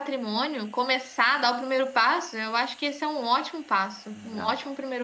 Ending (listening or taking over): taking over